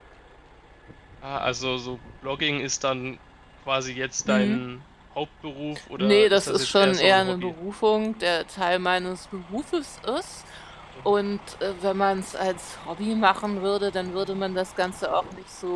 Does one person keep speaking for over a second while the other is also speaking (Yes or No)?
Yes